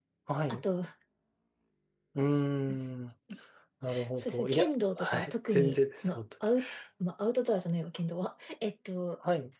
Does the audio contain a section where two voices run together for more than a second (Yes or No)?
Yes